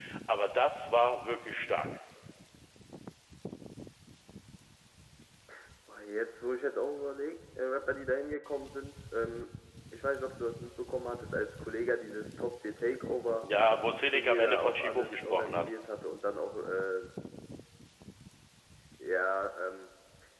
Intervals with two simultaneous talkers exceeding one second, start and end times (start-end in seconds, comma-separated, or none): 14.1-15.7